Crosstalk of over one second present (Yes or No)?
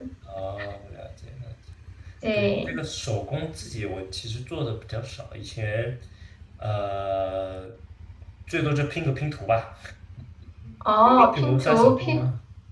Yes